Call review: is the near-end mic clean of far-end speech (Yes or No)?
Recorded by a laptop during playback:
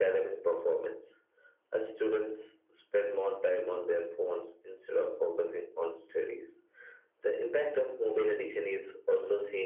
No